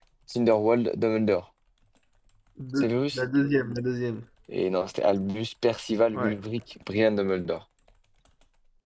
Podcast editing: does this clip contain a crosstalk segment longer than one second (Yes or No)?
No